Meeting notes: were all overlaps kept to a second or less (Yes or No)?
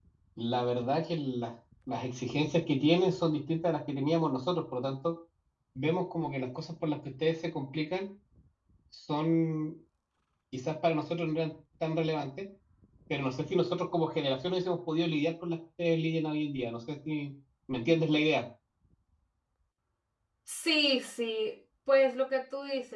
Yes